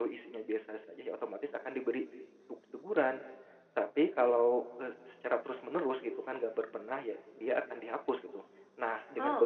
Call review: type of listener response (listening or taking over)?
listening